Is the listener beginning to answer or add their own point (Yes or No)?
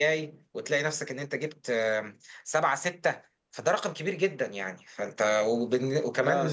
No